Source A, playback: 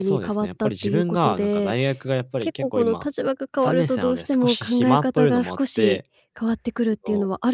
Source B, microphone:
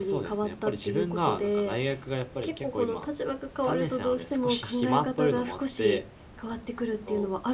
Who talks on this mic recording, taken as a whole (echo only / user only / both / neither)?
echo only